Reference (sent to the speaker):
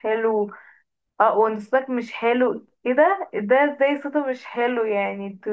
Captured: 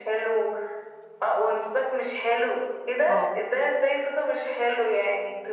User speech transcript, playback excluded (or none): اه